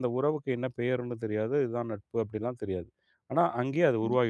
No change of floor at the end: No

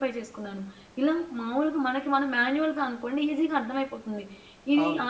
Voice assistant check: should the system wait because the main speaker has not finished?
Yes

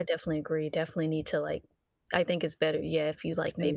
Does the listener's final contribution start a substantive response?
No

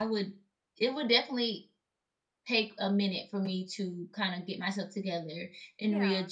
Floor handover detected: No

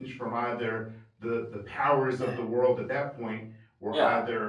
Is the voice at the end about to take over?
No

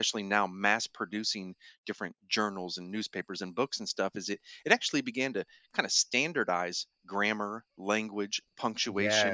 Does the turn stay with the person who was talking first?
Yes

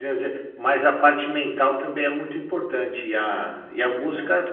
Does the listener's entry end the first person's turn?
No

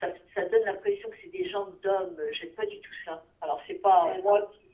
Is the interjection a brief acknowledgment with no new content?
No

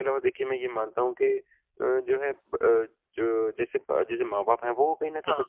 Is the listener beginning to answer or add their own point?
No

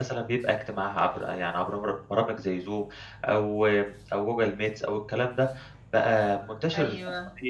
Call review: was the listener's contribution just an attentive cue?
Yes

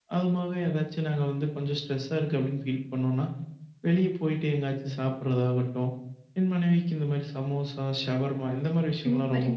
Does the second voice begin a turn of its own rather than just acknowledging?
Yes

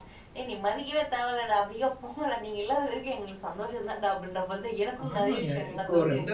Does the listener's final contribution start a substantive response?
Yes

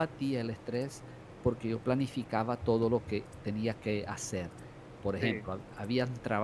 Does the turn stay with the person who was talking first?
Yes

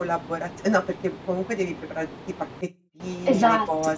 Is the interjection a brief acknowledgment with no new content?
Yes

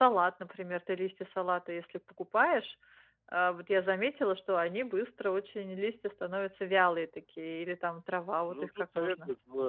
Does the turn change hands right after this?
Yes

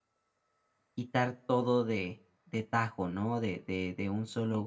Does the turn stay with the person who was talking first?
Yes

